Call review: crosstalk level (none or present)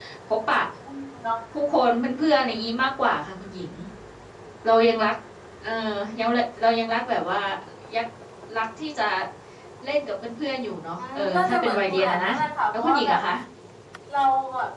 present